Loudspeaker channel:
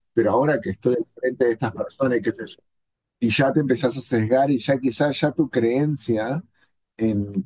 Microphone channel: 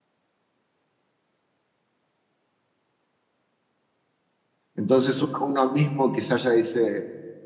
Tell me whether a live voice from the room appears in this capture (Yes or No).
Yes